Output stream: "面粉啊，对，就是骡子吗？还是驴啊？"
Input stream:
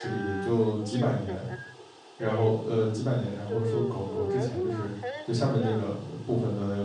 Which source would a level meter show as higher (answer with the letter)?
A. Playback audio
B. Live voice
B